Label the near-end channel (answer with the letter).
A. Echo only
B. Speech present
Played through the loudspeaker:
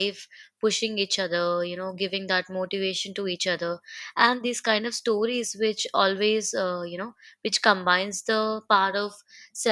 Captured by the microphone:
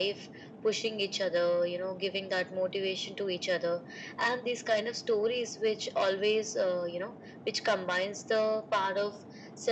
A